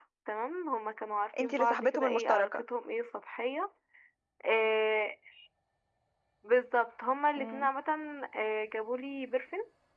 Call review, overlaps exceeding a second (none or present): present